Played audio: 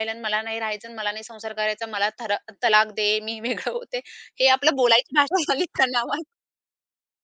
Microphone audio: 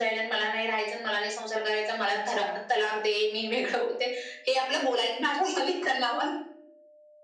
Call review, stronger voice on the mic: echo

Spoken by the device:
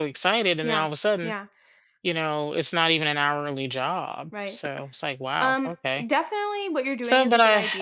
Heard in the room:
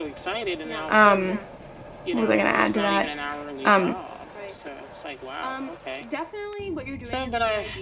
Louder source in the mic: user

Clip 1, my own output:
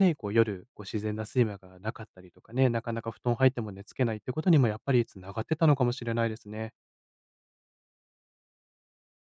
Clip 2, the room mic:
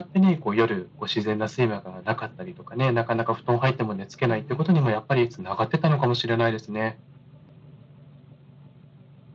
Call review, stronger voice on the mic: echo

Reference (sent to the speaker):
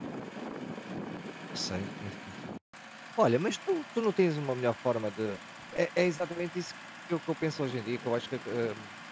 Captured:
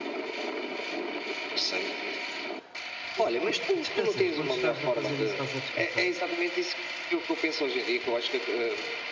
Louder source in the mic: echo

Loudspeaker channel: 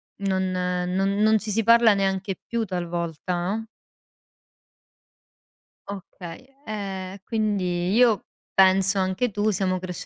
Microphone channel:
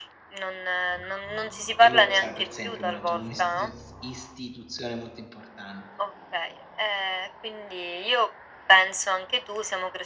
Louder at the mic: echo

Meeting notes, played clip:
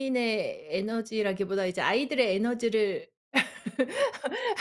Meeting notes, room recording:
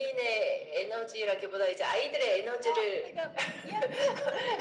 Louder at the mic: echo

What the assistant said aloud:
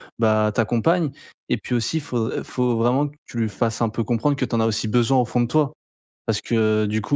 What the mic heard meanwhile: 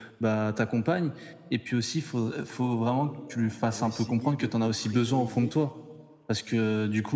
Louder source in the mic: echo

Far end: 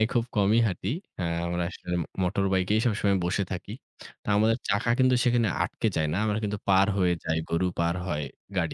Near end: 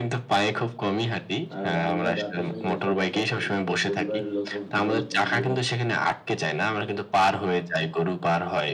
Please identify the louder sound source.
echo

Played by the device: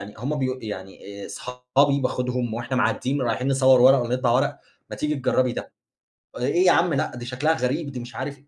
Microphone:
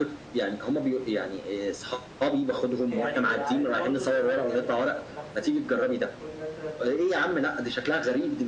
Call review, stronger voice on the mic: echo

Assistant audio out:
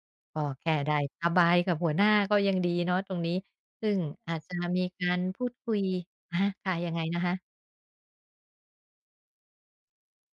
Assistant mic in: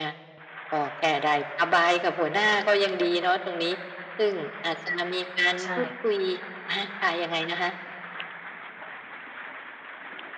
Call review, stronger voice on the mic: echo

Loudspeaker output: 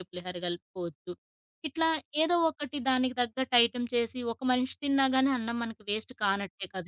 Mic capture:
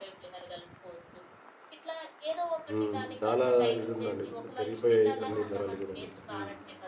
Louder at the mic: user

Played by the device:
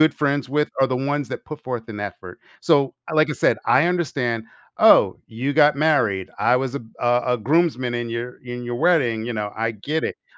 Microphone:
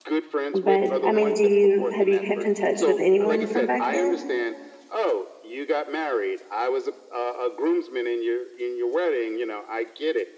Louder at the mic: user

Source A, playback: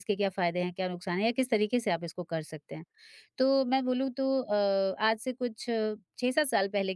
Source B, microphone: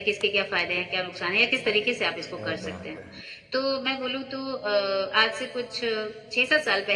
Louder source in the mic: echo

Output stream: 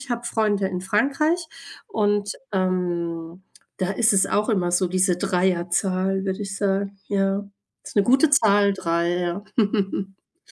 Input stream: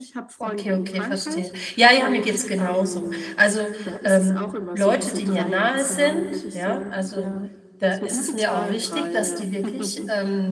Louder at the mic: user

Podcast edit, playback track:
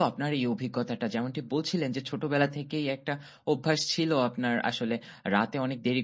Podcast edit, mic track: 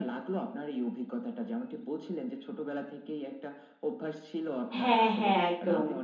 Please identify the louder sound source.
user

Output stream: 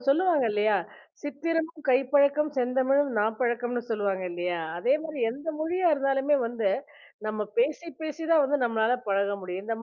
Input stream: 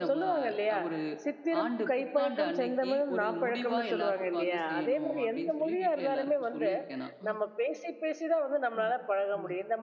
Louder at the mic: echo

